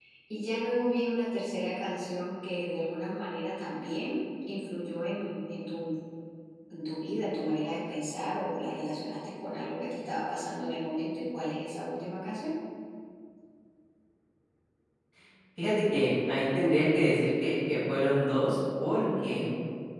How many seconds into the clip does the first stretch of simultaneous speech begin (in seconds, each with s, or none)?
none